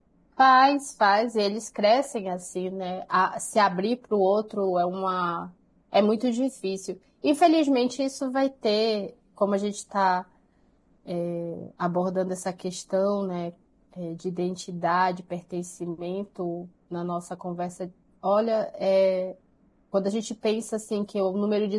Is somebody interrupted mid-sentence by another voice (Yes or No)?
No